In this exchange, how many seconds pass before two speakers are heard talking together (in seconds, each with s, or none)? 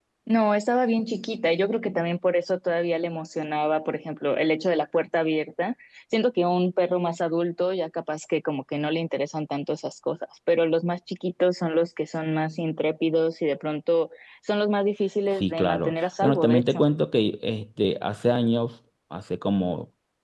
15.4 s